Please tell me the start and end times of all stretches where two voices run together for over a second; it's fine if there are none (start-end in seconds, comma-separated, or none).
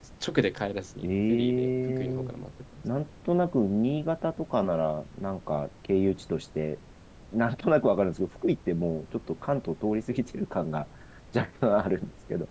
1.0-2.3